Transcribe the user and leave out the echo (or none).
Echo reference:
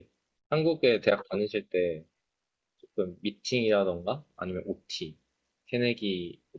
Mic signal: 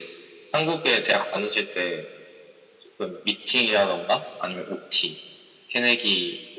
none